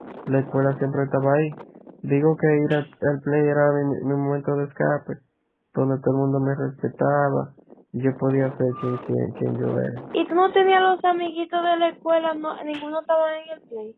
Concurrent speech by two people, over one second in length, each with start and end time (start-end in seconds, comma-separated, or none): none